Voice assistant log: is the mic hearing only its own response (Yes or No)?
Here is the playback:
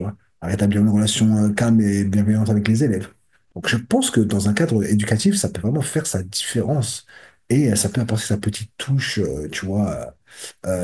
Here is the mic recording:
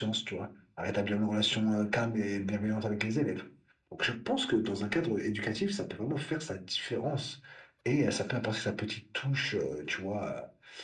Yes